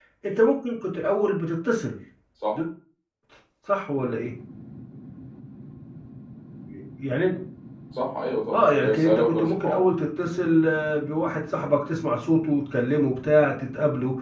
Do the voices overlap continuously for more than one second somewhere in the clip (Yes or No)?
Yes